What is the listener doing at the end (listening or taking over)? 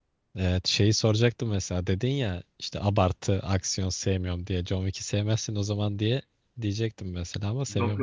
taking over